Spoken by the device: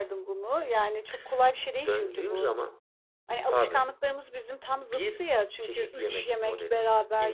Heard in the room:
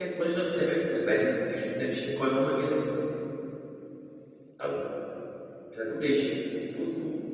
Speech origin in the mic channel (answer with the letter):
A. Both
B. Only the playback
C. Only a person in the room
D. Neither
C